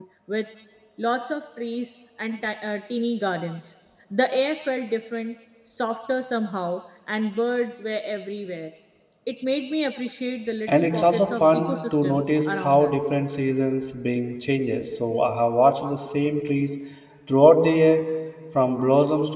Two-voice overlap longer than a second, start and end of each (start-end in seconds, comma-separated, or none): 10.7-13.1